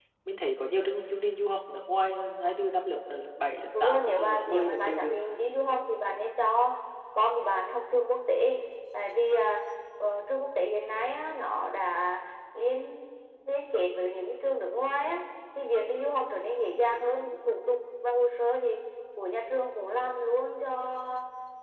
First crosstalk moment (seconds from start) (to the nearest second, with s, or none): 4 s